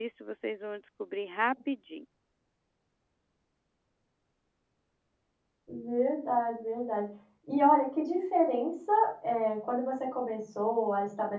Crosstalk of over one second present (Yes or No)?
No